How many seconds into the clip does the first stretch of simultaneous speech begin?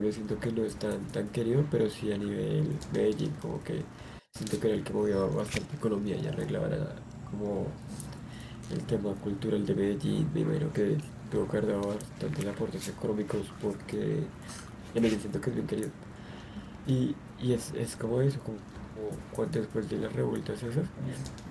none

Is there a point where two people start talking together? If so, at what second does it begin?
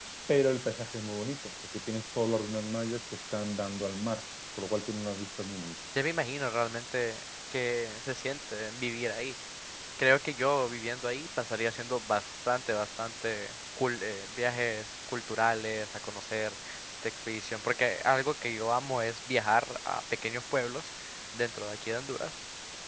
none

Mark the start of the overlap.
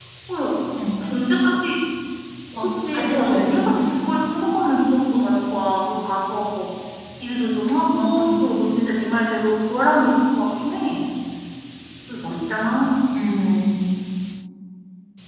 3 s

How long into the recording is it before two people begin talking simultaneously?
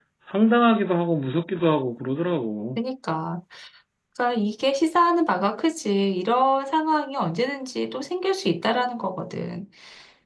none

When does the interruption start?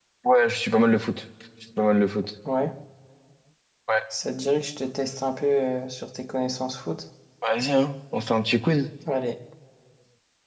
none

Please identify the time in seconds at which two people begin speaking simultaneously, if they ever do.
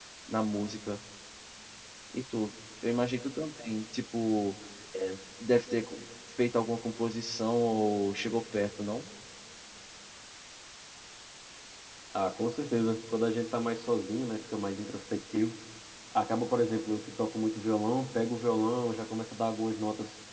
none

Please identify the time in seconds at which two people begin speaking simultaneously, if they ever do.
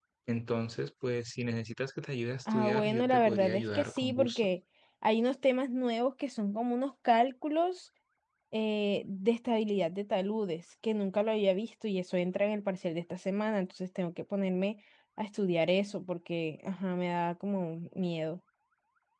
2 s

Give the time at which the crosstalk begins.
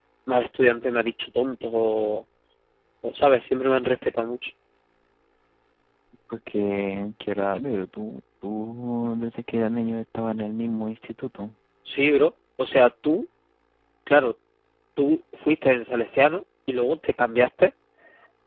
none

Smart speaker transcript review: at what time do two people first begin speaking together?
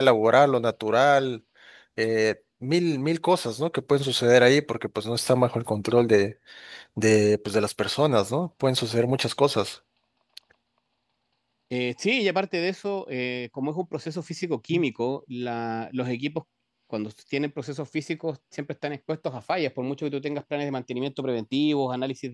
none

